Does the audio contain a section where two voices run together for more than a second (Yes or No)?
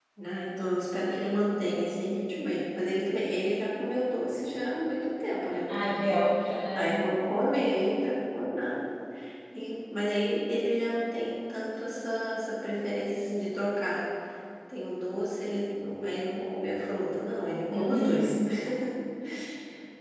No